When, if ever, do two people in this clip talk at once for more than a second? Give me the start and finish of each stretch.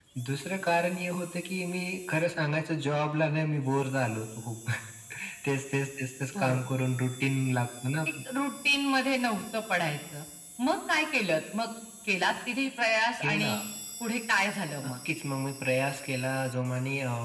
none

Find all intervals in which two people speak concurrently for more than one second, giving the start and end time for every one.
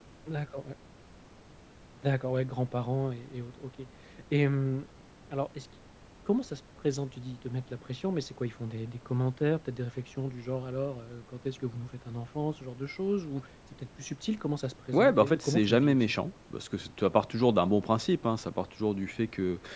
14.9-16.2

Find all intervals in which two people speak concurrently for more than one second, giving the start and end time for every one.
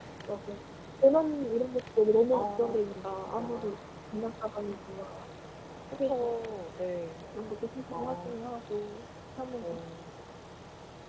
2.3-3.8

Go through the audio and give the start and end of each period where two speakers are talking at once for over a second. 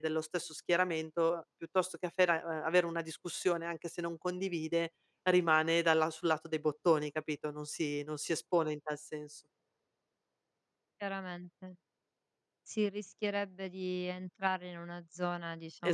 none

